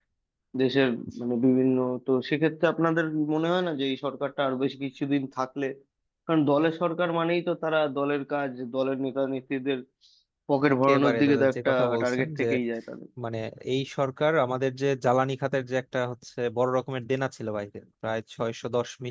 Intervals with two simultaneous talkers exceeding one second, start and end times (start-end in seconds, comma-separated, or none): 10.7-12.4